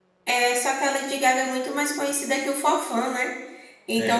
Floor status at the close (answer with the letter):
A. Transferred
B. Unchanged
B